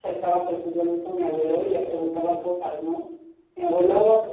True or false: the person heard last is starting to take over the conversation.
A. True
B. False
B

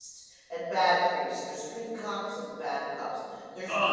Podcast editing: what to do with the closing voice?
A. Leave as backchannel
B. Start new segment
A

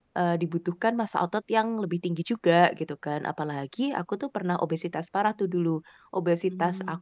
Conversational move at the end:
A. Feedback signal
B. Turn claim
A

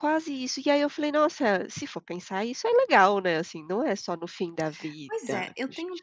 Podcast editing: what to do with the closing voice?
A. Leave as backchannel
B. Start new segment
B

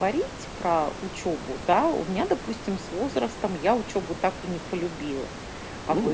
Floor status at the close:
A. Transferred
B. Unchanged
A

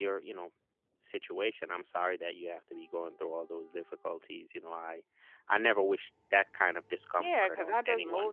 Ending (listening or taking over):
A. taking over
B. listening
A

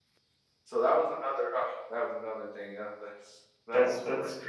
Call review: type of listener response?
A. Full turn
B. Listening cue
A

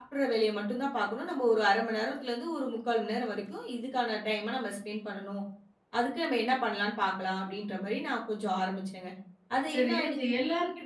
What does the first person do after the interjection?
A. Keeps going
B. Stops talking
B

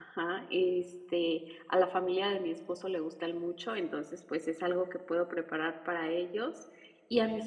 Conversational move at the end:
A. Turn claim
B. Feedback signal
B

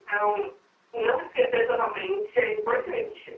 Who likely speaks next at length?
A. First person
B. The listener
B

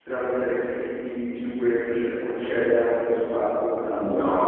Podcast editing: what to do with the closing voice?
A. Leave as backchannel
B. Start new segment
B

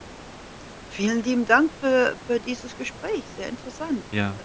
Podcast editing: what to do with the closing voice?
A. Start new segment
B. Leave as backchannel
A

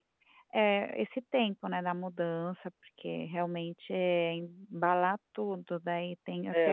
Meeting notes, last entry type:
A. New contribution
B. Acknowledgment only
A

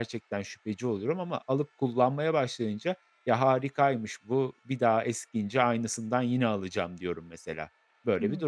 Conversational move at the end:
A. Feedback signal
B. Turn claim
B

